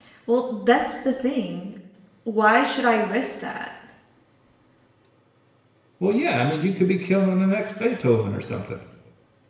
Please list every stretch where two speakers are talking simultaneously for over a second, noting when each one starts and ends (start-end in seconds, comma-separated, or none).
none